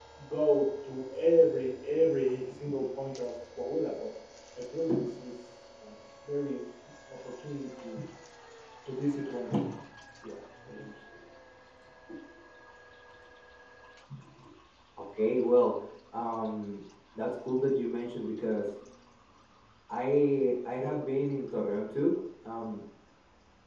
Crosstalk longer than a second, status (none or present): none